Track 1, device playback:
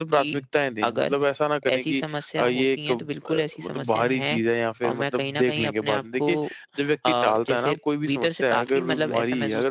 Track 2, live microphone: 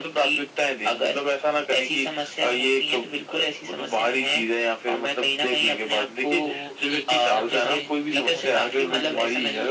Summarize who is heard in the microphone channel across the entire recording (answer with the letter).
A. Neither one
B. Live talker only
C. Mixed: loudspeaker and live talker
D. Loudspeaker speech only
C